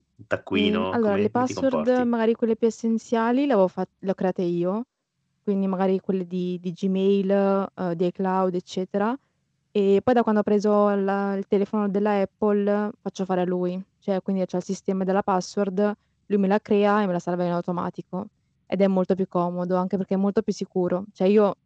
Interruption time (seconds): 1 s

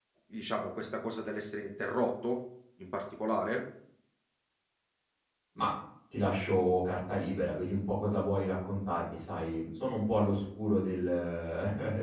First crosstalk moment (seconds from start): none

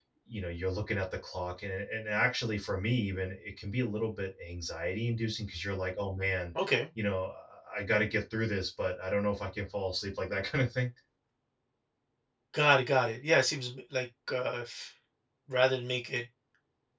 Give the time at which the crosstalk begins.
none

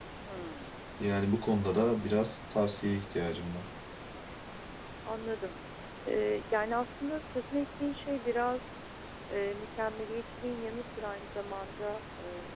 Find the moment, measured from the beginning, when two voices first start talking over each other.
none

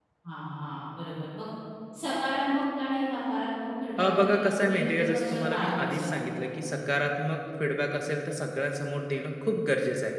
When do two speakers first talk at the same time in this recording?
4 s

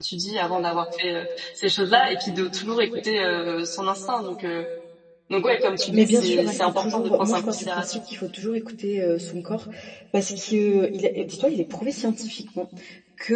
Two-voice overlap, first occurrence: 6 s

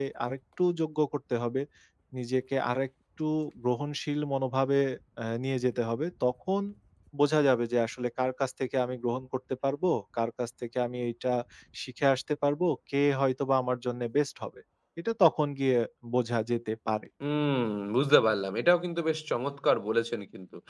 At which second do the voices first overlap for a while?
none

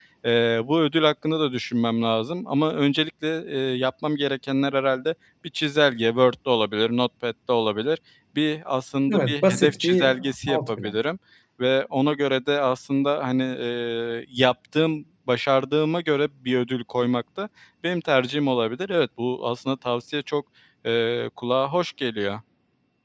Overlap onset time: 9 s

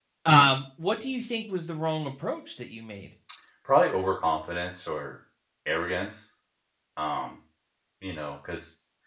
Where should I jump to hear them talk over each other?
none

